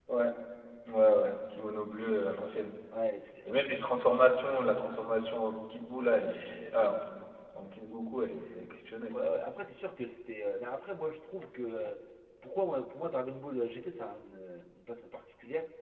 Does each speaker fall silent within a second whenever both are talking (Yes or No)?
Yes